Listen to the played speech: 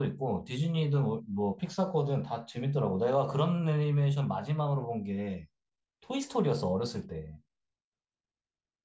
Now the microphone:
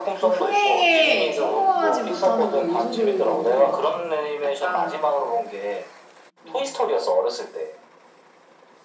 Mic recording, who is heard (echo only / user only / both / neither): both